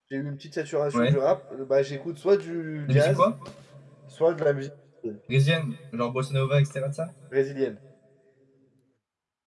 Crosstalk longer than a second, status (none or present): none